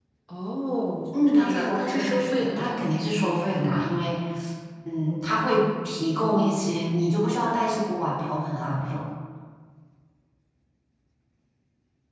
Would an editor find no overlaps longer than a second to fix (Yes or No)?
No